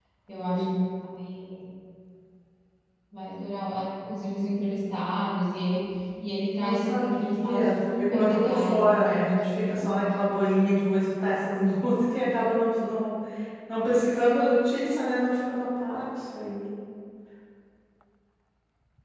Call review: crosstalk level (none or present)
present